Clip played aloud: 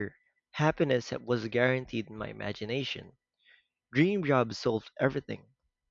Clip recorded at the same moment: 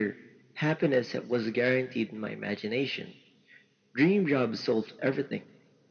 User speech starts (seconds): none

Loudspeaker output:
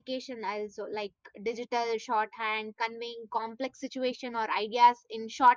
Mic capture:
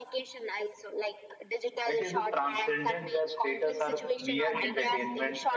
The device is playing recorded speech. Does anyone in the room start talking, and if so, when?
1.9 s

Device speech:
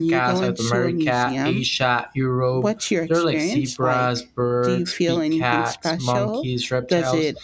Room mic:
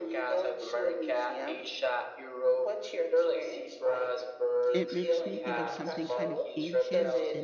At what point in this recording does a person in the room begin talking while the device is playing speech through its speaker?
4.7 s

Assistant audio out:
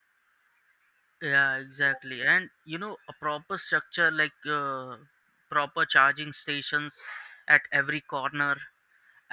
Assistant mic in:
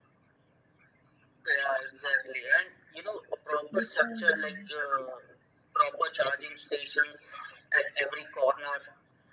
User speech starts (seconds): 3.7 s

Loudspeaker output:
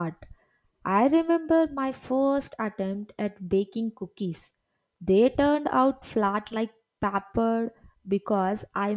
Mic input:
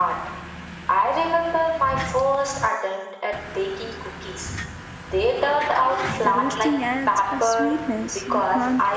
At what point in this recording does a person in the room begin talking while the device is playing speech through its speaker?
6.2 s

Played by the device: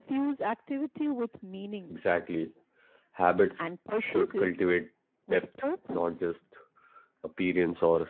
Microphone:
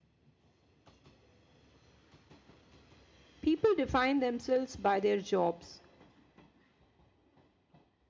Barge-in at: 3.4 s

